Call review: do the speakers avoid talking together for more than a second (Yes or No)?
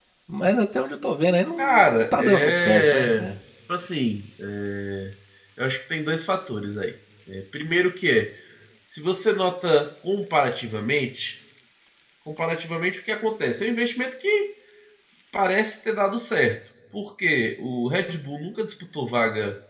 No